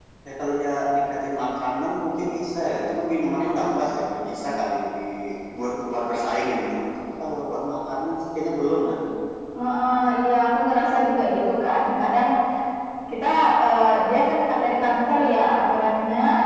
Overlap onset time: none

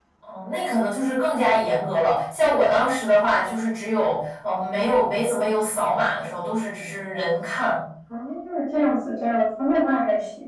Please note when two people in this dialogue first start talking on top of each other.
none

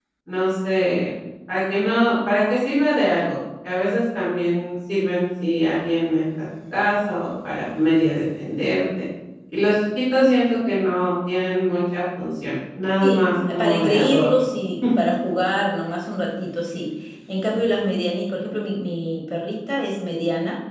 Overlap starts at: 13 s

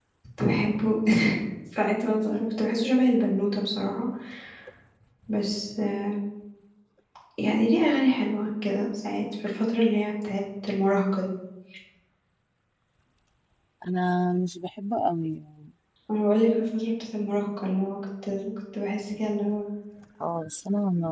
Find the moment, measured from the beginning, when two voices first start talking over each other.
none

